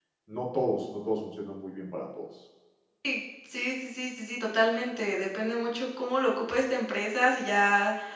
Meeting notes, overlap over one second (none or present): none